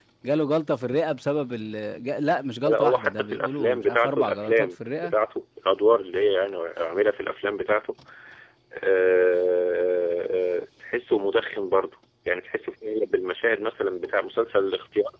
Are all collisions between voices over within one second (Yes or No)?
No